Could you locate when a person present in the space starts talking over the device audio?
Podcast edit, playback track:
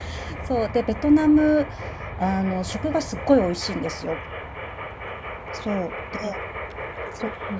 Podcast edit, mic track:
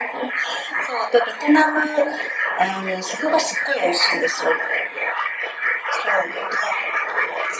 none

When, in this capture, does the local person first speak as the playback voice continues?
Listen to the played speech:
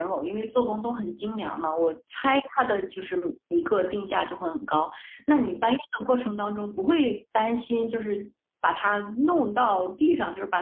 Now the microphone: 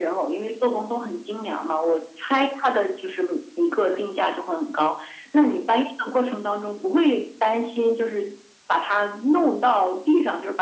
none

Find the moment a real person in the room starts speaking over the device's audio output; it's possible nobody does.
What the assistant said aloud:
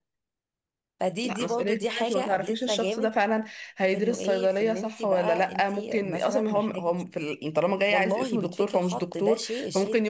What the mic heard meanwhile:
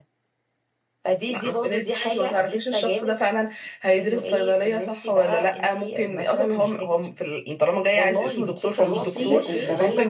9 s

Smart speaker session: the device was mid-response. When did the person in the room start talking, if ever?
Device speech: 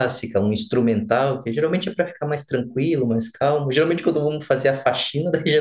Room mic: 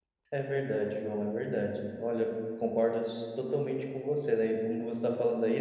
0 s

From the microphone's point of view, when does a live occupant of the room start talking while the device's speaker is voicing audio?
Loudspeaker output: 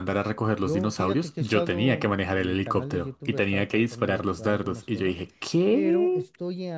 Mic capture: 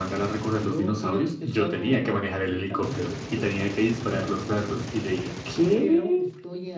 none

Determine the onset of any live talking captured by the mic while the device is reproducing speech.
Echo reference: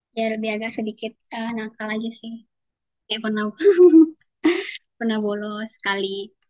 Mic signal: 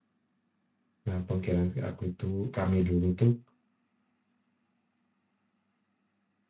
1 s

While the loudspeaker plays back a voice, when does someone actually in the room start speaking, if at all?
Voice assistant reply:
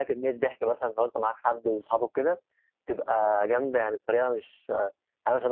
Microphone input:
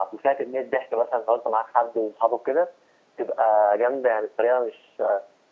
none

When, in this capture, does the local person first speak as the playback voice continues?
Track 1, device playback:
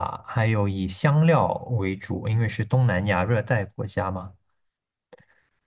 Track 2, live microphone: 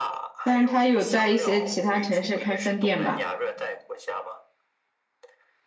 0 s

